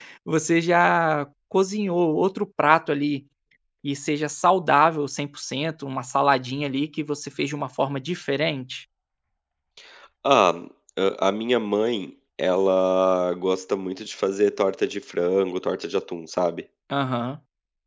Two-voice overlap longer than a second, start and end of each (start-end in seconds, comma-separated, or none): none